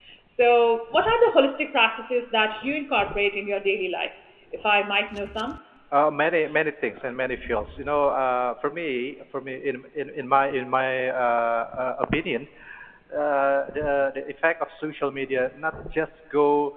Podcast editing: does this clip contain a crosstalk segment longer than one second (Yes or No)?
No